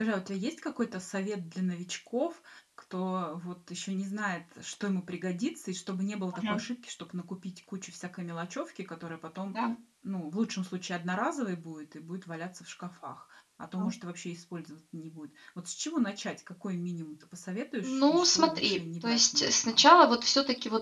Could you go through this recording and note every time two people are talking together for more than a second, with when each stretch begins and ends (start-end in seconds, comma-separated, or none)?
17.8-19.9